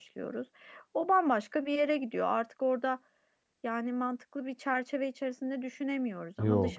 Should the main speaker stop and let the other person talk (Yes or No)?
No